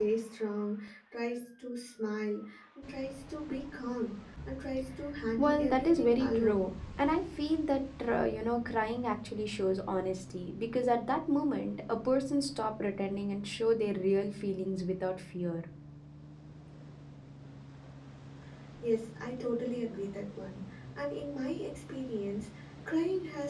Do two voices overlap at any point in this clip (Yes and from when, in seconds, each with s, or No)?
Yes, from 5.4 s